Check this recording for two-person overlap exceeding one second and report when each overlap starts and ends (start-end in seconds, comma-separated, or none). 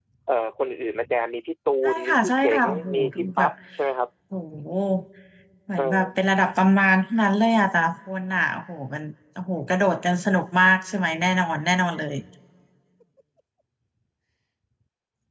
1.8-3.5